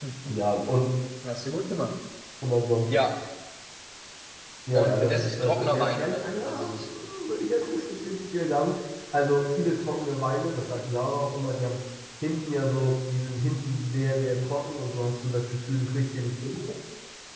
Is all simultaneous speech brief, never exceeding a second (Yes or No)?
No